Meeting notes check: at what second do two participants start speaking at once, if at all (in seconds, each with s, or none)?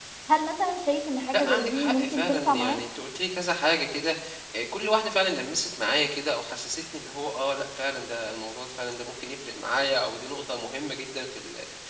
1.3 s